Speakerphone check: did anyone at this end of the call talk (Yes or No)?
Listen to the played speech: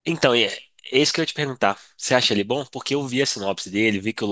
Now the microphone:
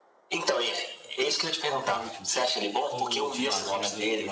Yes